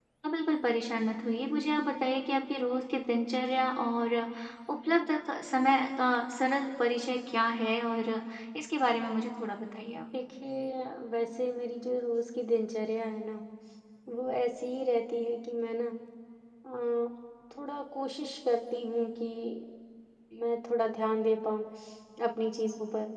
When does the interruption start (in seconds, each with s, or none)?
none